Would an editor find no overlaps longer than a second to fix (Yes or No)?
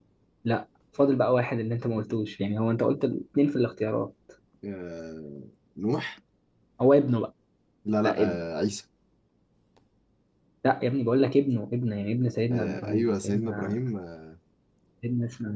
No